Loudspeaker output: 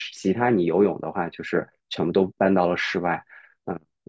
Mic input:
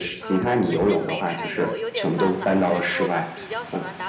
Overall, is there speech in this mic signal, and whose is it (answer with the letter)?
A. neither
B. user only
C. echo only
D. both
D